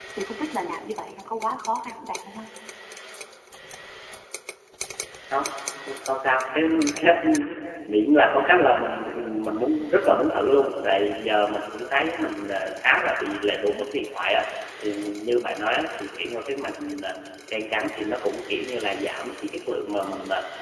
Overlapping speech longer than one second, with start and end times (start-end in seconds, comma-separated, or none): none